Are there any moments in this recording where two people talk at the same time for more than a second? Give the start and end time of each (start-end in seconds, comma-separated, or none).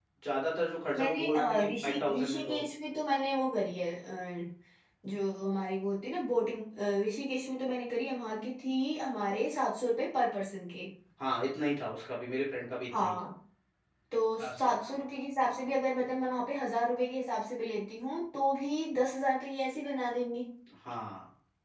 1.0-2.6